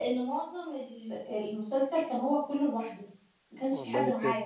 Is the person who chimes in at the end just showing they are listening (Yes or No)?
No